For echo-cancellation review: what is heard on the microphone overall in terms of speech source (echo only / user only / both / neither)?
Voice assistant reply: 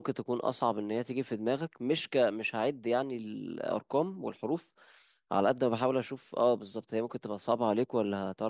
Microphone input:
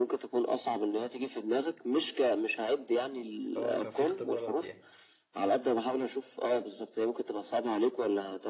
both